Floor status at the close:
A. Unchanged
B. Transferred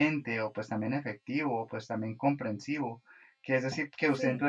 A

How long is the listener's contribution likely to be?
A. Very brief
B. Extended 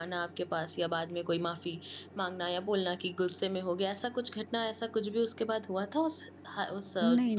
B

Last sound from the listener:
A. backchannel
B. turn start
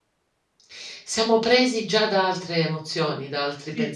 B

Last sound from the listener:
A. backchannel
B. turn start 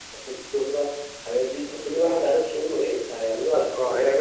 B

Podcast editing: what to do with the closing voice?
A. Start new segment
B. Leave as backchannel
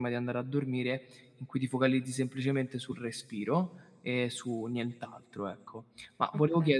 B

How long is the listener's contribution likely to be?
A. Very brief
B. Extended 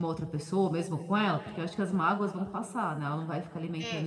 B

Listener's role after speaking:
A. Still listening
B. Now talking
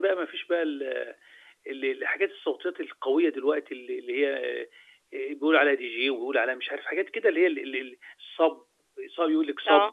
A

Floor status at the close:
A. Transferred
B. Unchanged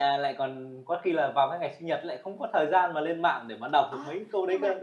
A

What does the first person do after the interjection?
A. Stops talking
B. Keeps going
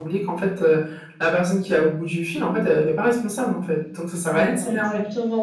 A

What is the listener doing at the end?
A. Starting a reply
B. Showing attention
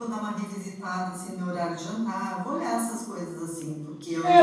A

